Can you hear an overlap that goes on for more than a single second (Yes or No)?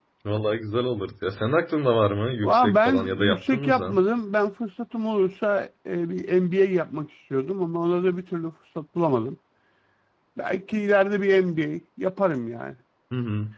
Yes